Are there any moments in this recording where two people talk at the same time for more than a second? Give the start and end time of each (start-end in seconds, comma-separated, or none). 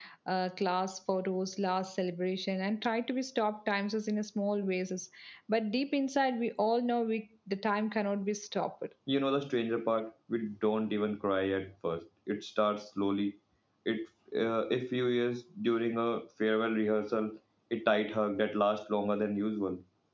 none